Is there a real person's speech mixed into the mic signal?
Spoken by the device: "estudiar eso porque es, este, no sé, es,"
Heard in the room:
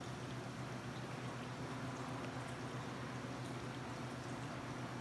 No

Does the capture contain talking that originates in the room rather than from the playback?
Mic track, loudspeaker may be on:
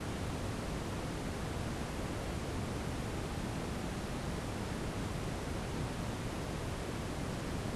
No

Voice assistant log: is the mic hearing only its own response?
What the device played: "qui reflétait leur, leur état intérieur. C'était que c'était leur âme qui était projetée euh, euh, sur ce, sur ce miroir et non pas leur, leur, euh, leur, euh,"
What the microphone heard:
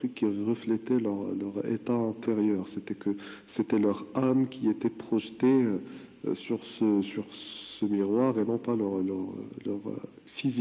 Yes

